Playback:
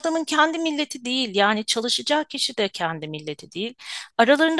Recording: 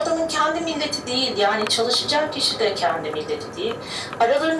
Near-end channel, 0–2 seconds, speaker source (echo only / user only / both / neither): echo only